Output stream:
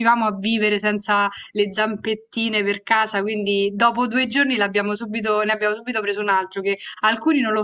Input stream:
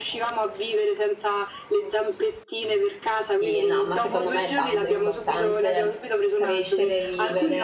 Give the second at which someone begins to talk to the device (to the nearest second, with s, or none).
3 s